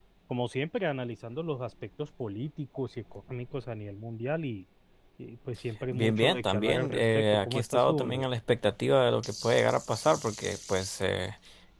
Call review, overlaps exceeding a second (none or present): present